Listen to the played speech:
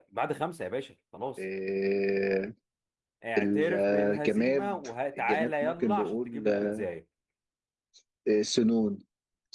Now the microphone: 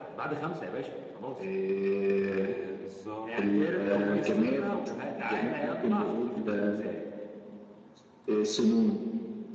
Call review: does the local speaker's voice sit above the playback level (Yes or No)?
No